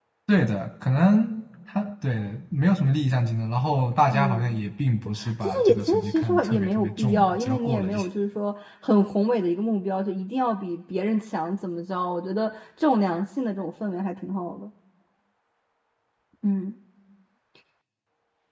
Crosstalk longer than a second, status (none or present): present